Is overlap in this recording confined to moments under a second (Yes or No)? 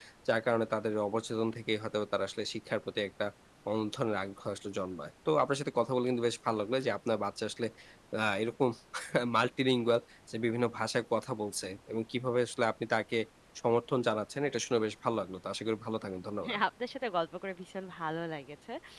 Yes